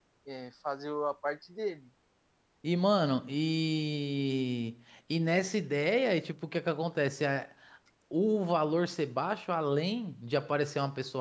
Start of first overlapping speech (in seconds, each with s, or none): none